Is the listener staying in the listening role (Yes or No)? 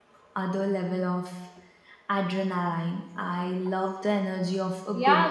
No